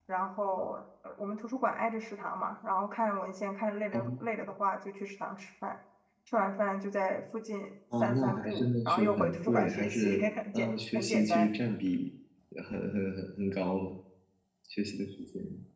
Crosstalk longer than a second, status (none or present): present